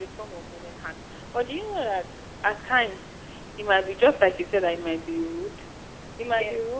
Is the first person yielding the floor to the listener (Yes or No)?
No